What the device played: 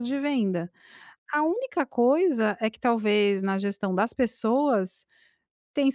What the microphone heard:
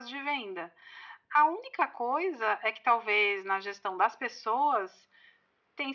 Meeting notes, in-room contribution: none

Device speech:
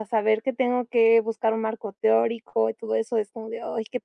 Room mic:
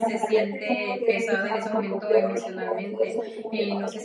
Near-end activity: present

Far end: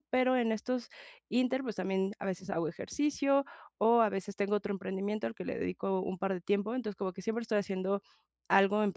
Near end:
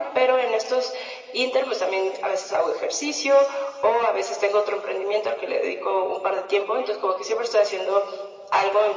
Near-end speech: none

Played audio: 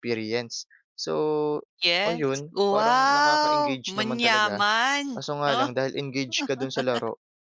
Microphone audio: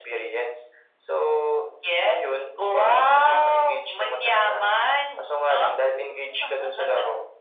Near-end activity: none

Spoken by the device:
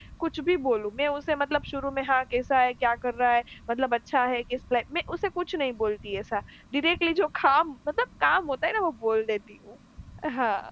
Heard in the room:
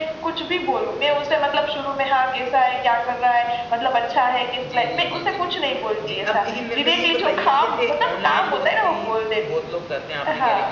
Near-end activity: present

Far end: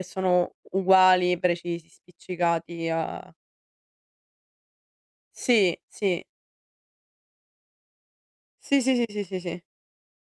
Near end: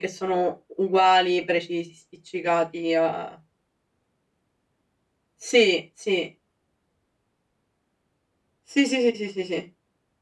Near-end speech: none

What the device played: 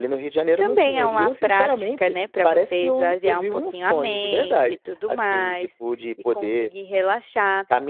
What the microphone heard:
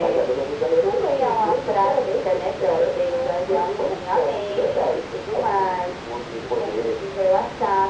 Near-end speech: none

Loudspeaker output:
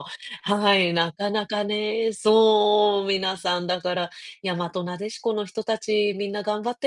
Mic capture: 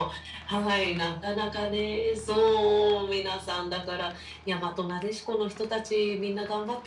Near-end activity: none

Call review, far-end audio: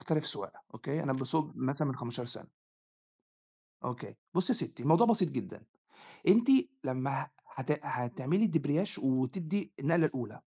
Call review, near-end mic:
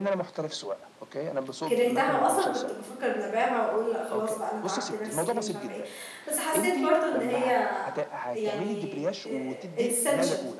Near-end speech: present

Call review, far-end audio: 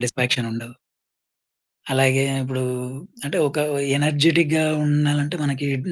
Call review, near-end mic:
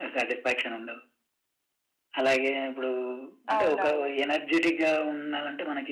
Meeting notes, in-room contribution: present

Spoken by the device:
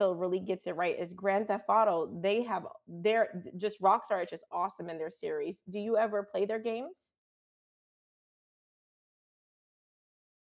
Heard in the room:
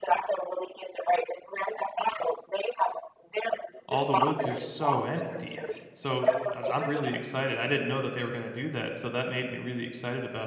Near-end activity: present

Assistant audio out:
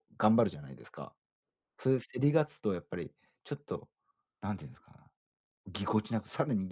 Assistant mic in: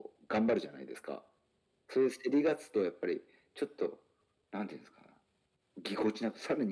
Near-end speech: none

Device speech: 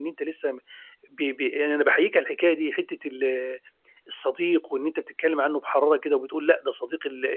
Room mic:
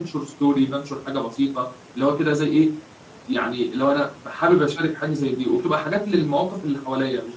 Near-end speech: present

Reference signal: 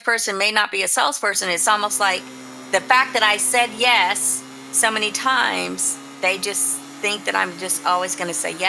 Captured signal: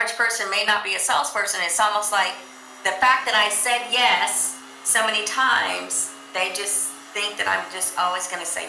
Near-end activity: none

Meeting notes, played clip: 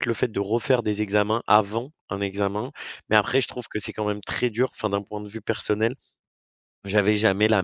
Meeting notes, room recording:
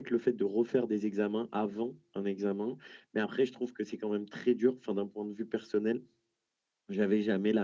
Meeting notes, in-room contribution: none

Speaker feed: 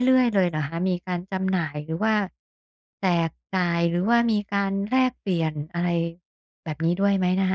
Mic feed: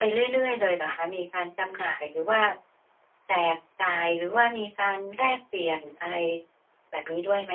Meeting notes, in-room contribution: none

